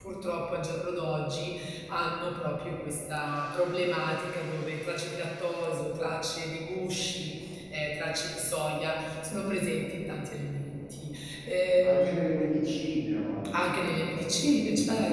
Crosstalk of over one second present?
Yes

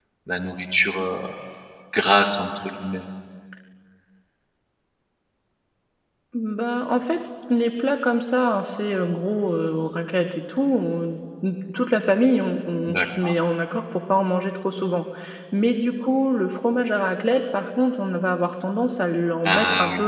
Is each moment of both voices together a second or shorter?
Yes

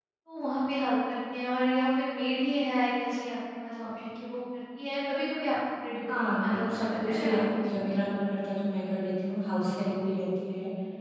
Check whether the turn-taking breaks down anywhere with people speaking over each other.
Yes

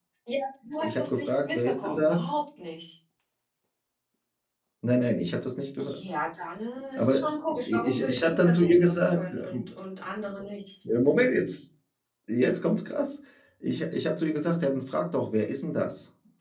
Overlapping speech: Yes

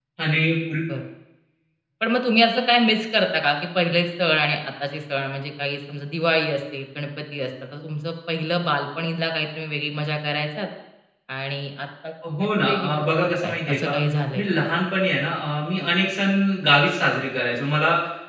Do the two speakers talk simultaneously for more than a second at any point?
Yes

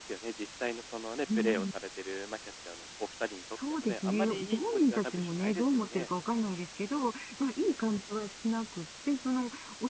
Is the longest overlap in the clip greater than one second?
Yes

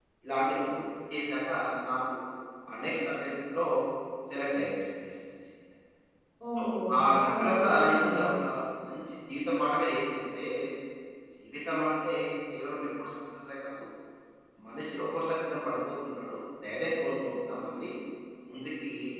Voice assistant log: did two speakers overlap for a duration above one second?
Yes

